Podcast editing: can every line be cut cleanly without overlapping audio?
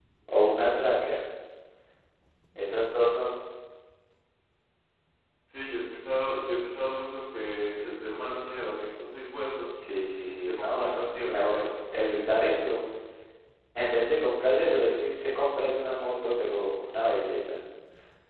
No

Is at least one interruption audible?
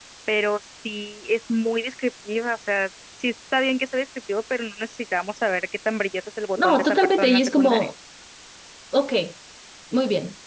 Yes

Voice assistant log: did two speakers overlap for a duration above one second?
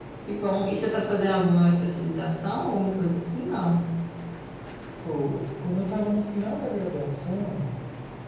No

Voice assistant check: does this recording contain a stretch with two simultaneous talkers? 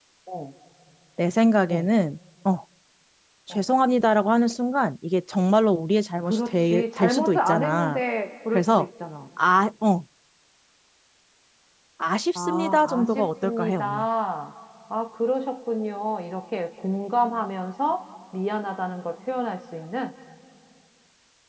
Yes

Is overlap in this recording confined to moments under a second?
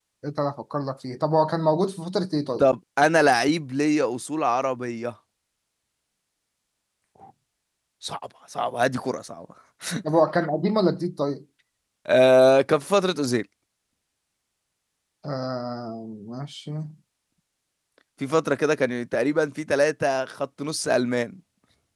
Yes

